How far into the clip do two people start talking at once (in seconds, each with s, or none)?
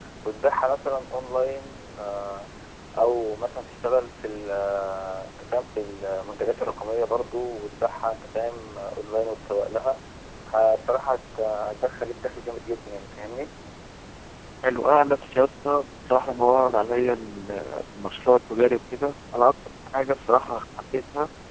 none